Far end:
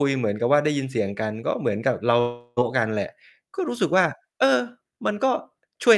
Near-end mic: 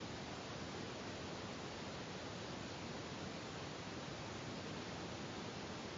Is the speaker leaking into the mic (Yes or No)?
No